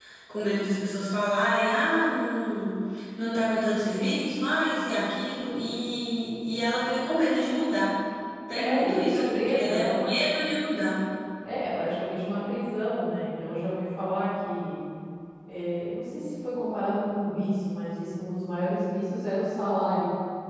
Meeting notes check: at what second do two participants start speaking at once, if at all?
8.5 s

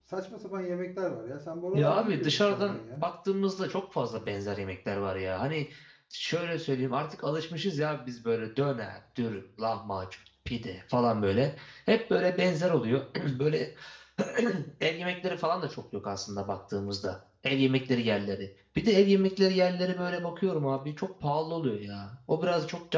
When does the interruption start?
1.7 s

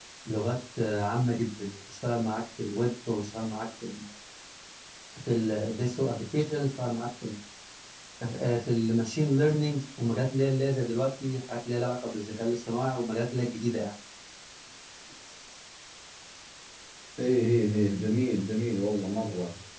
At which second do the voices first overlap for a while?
none

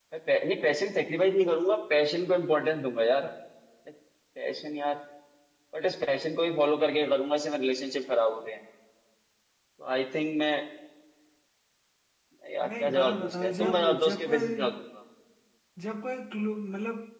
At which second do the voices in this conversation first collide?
12.8 s

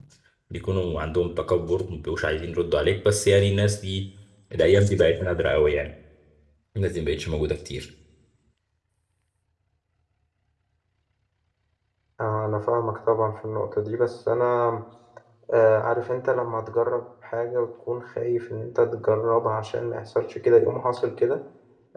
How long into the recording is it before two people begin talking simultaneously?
none

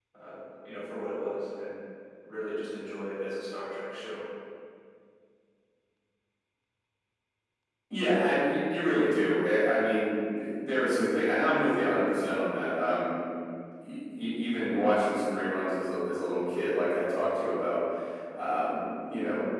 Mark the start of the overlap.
none

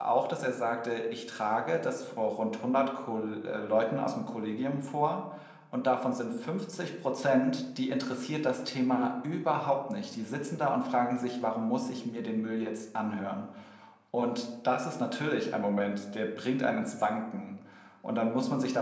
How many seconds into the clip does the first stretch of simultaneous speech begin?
none

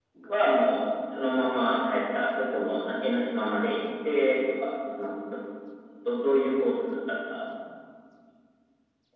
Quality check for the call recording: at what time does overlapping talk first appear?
none

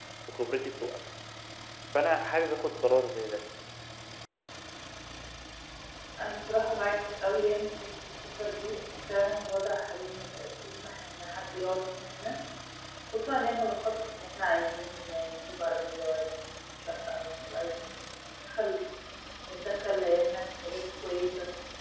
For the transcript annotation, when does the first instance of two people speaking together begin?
none

